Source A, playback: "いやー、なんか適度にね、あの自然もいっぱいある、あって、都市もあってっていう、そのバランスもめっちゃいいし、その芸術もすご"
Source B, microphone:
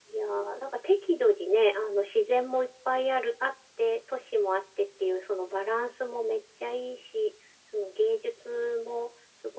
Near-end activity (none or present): none